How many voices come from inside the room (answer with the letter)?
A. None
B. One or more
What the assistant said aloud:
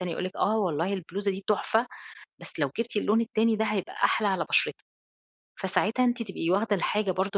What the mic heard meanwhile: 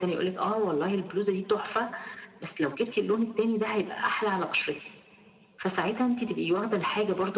A